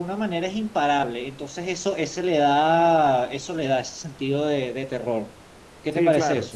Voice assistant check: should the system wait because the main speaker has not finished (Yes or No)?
No